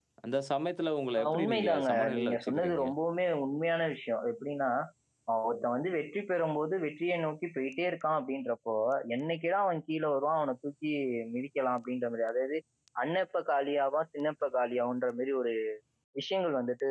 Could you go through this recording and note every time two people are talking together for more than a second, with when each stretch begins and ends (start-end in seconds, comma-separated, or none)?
1.2-2.8